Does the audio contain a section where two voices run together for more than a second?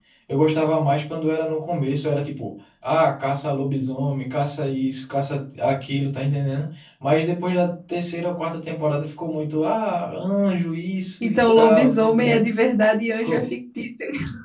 Yes, from 11.2 s

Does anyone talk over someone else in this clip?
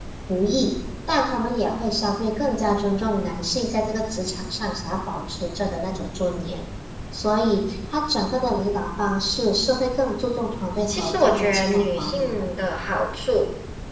Yes, from 10.9 s

